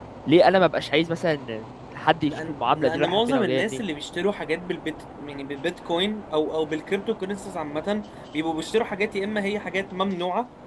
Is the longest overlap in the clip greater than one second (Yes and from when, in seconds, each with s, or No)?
Yes, from 2.3 s